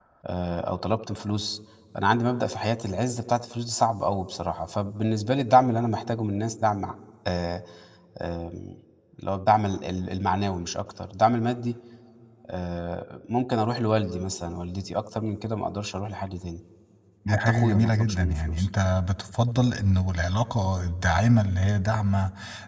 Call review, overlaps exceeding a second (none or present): present